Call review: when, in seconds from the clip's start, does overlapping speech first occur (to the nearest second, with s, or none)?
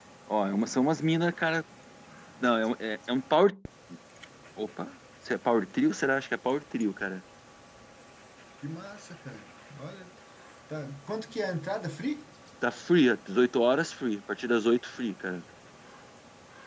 none